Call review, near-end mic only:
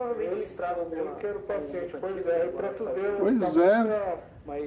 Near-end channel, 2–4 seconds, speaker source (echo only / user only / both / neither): both